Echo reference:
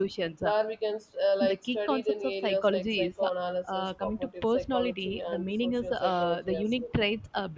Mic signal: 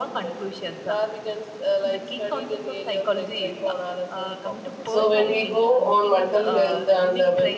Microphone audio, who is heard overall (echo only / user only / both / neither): both